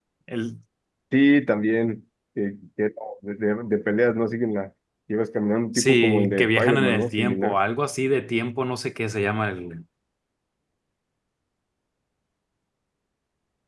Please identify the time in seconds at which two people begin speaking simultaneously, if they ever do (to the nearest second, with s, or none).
6 s